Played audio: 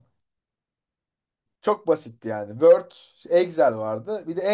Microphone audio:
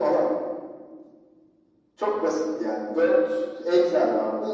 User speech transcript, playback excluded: none

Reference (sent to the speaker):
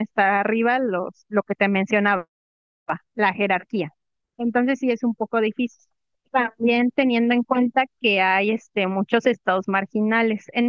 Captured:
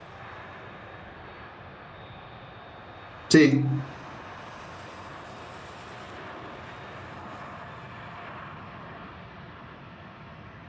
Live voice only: sí.

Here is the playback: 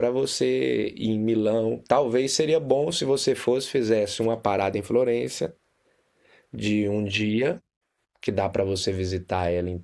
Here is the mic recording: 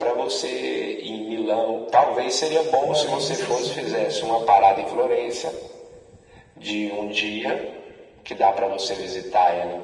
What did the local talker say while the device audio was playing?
Florença, sim.

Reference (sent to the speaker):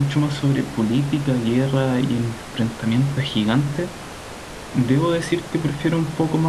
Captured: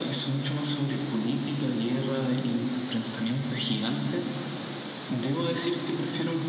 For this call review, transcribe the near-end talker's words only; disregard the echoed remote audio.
none

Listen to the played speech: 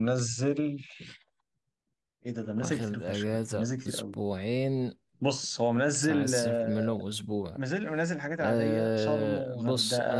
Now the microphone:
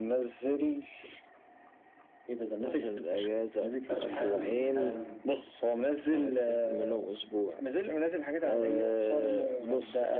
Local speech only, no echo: طب حلو حلو

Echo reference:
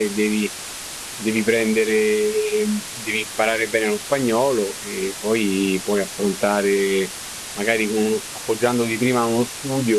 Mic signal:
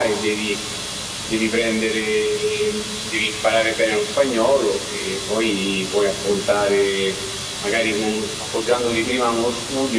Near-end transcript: none

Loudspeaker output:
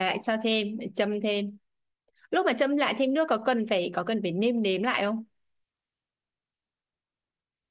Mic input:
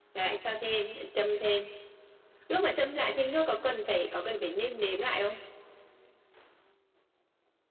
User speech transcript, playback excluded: none

